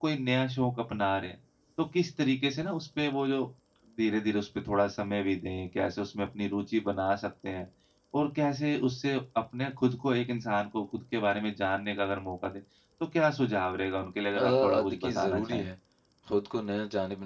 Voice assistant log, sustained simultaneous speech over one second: present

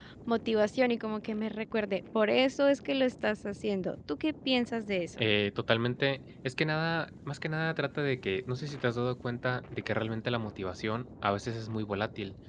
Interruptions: none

